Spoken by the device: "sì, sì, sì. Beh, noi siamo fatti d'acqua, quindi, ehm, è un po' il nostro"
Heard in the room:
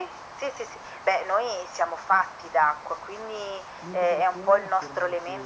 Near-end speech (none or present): present